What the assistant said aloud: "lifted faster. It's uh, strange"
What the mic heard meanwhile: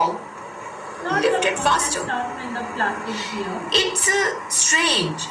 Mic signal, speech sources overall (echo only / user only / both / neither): both